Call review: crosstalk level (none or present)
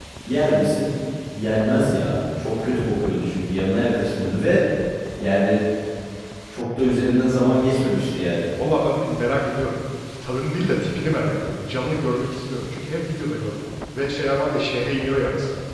none